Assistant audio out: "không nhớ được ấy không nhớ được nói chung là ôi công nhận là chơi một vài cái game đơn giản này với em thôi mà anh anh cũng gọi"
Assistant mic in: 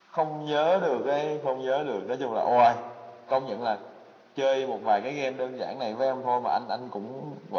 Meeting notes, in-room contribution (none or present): none